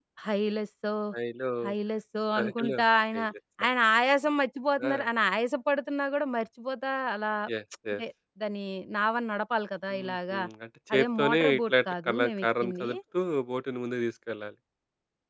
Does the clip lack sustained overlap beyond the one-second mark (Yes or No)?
No